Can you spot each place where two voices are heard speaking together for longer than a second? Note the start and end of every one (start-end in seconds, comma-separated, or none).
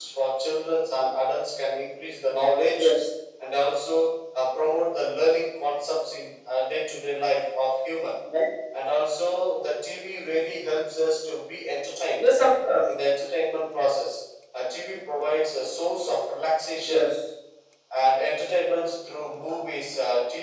none